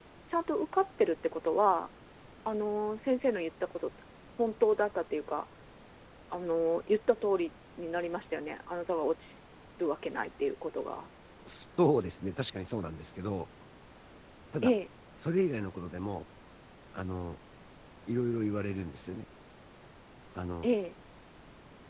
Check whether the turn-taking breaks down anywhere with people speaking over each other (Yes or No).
No